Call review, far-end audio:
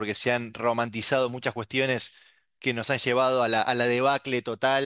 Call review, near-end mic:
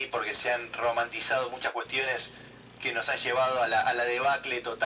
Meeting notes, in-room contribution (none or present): none